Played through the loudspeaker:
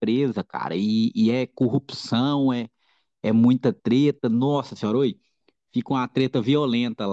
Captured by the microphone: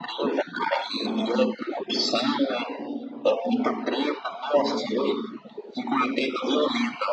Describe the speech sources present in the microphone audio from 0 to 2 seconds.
echo only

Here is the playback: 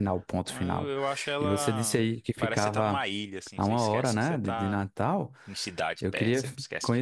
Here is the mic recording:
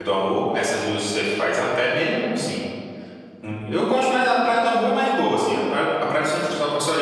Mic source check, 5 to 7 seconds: user only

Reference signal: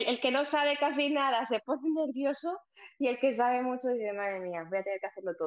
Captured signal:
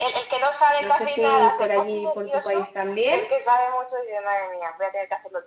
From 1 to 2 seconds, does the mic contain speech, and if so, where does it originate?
both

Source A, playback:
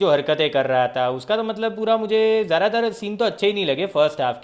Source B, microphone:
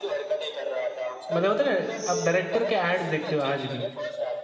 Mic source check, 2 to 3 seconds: both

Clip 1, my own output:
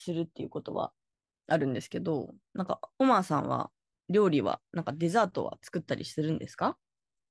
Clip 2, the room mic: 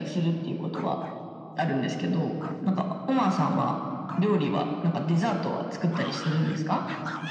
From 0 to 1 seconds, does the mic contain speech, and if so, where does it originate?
echo only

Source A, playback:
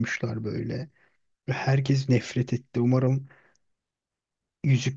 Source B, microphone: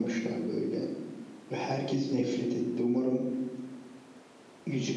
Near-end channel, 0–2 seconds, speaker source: echo only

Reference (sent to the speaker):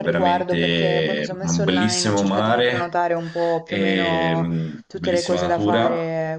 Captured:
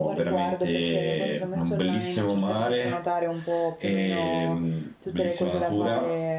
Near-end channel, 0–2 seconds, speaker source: echo only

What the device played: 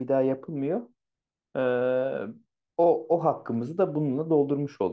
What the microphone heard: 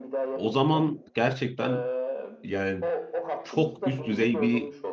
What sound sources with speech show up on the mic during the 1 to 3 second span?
both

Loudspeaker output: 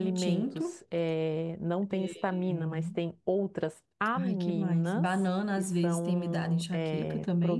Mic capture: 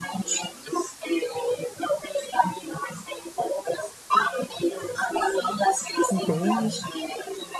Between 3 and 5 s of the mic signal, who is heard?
echo only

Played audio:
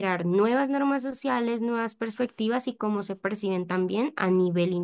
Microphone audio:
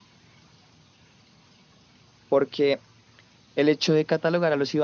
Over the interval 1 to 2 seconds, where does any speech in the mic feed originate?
neither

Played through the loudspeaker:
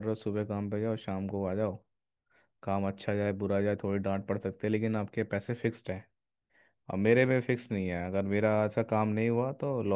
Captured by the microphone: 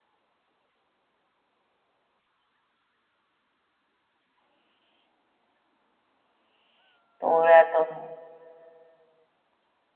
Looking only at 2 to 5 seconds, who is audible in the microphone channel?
neither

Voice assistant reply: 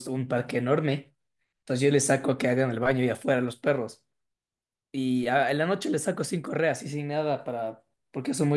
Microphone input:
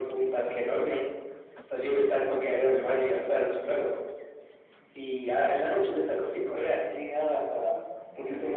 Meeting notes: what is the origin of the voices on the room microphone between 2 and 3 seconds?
echo only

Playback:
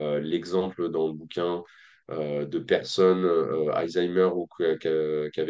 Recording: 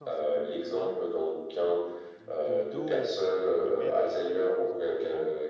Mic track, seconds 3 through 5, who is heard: both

